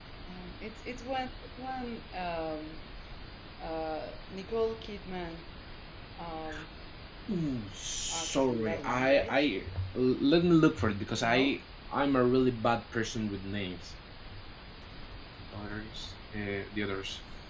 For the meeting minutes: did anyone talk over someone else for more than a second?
Yes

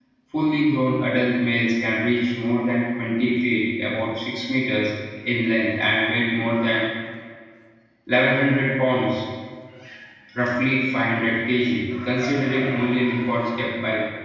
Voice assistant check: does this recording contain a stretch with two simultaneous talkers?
No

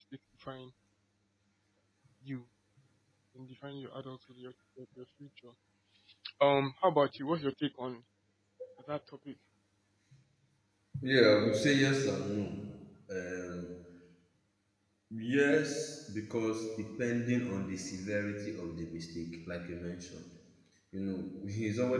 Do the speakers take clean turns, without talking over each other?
Yes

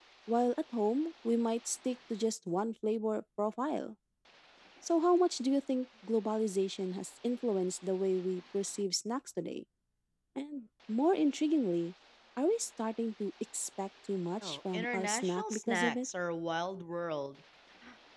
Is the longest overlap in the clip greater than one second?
Yes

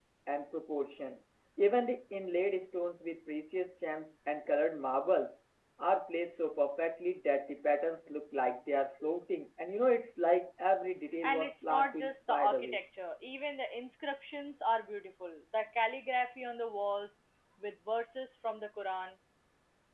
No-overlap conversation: No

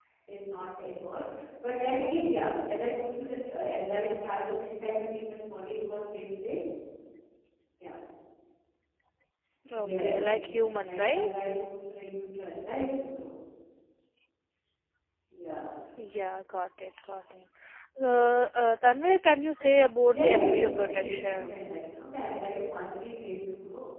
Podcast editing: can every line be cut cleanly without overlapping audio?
No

